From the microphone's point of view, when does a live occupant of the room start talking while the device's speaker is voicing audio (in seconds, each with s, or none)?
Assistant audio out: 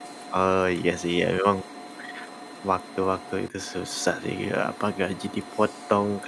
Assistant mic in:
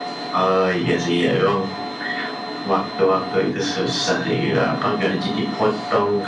none